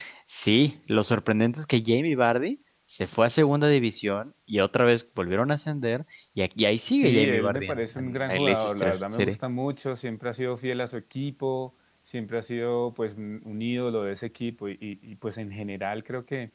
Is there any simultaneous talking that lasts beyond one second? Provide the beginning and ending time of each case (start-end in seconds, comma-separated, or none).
7.0-9.4